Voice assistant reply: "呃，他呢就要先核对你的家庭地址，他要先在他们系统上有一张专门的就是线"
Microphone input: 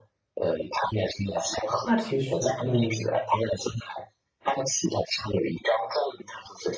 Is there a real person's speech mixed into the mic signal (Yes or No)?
Yes